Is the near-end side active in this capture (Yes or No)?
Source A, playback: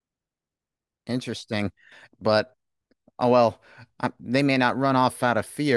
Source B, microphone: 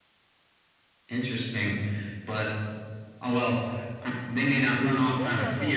Yes